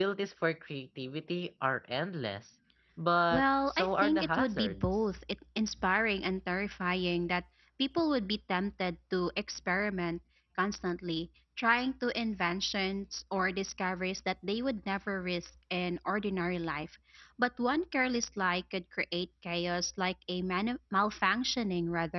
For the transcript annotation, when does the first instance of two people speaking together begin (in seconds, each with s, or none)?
3.3 s